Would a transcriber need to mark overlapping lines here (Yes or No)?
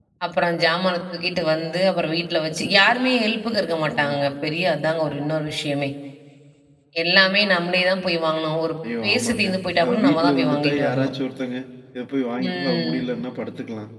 Yes